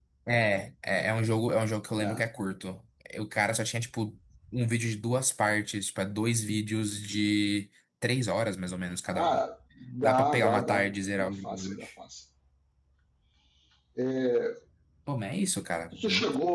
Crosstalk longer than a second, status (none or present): present